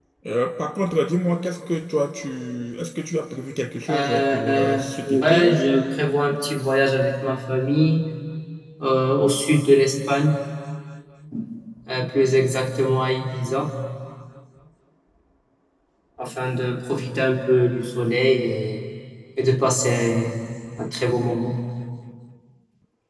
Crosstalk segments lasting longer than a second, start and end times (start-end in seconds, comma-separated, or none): 3.9-5.6